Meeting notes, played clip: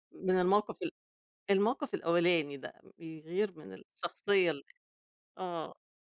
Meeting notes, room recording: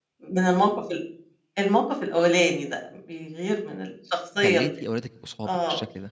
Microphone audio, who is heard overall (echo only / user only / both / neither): both